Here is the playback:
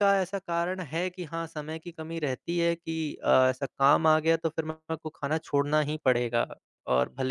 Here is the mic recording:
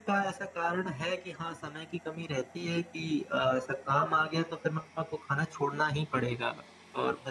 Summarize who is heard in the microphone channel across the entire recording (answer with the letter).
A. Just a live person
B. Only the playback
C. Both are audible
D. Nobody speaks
B